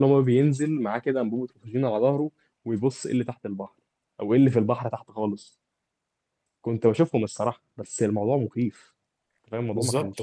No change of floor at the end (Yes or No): No